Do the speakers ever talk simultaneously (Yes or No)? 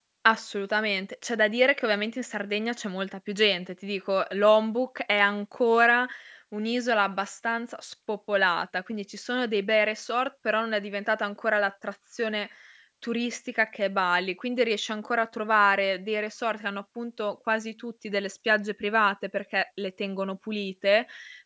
No